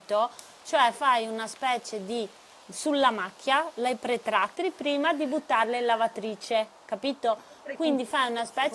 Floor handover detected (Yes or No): No